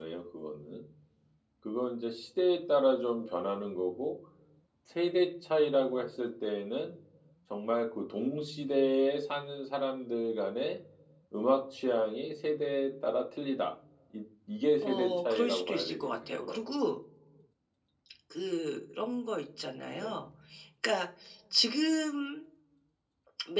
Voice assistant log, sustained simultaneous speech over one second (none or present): present